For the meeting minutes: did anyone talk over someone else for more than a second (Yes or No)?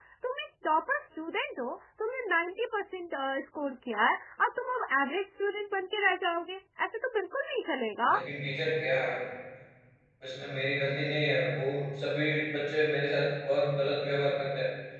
No